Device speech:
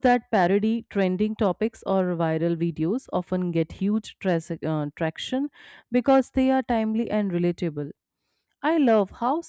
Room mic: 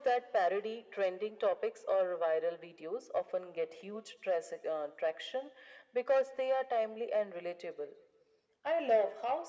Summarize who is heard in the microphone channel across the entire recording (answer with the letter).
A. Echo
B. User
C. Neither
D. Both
A